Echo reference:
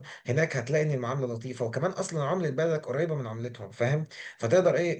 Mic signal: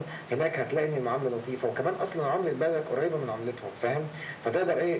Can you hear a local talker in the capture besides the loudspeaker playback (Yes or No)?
No